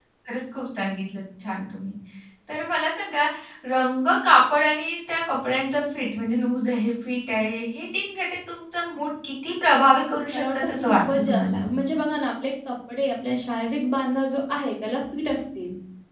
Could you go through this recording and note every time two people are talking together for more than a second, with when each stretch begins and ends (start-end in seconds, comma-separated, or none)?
10.3-11.6